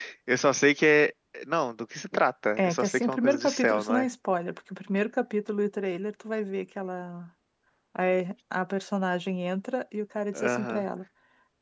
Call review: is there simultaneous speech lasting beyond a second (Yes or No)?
Yes